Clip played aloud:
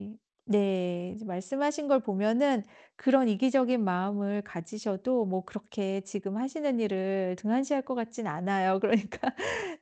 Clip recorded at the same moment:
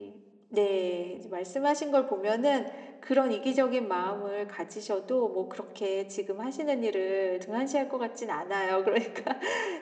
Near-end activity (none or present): none